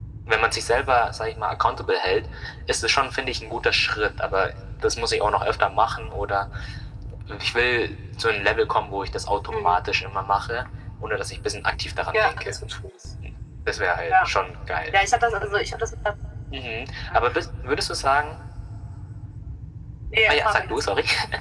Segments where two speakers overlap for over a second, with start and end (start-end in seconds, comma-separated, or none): none